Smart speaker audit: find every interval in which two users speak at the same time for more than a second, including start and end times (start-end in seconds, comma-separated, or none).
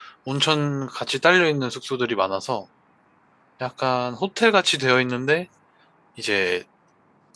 none